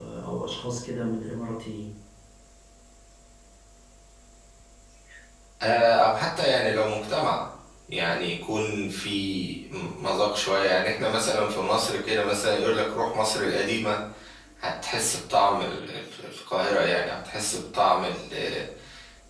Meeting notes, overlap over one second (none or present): none